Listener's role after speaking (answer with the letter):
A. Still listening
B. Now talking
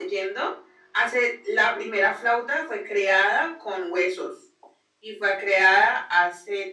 A